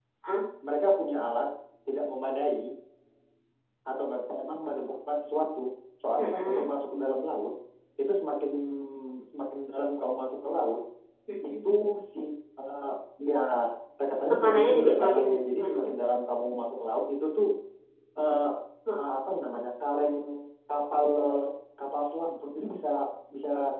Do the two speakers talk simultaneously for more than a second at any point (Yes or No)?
Yes